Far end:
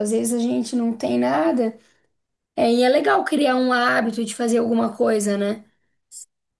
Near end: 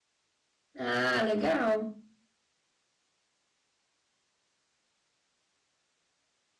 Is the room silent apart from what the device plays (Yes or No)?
No